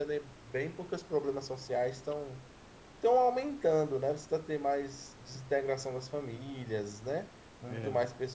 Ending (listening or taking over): listening